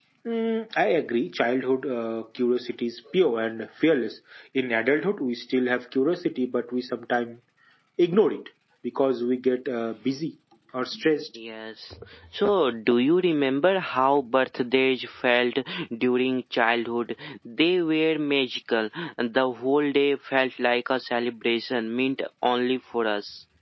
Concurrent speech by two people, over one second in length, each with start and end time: none

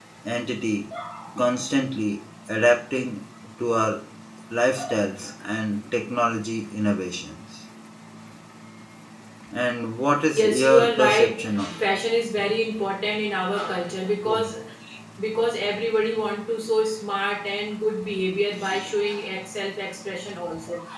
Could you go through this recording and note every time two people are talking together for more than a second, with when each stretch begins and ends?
10.4-11.7

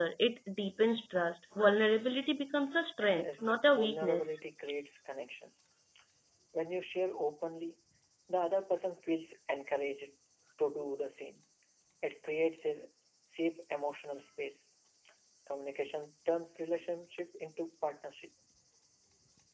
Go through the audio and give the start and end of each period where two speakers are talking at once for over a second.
3.2-4.4

